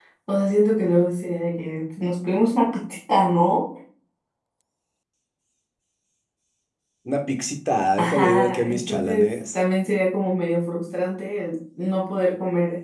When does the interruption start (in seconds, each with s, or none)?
8.0 s